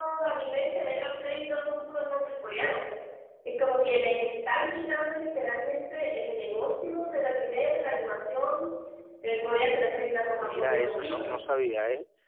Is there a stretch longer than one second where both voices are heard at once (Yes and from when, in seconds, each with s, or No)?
Yes, from 9.3 s